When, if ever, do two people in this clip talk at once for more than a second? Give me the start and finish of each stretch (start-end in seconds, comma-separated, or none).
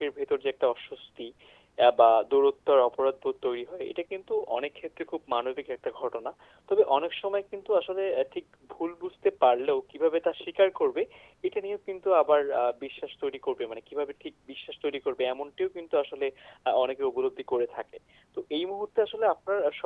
none